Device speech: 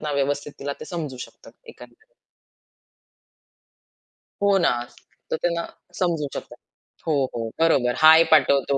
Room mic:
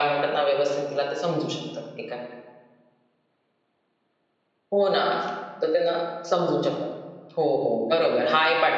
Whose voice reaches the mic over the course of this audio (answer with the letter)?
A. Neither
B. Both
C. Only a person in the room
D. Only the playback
D